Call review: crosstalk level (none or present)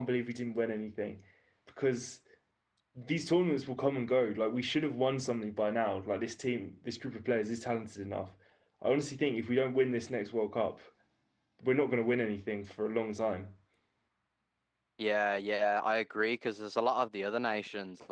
none